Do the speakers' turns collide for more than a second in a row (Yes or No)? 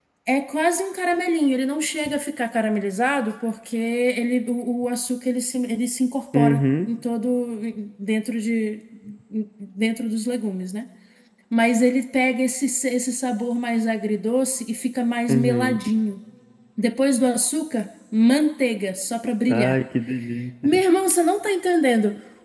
No